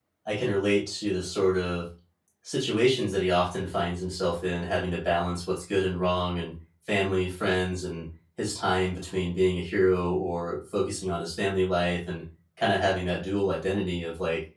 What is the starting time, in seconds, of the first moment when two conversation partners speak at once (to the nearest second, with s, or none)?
none